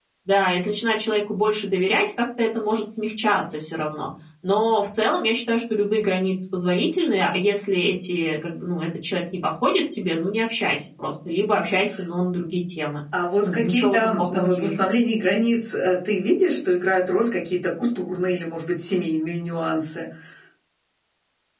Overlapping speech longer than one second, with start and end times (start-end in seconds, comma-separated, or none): 13.4-14.8